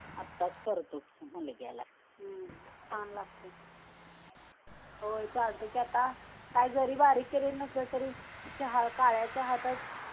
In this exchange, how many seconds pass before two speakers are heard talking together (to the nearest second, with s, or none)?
none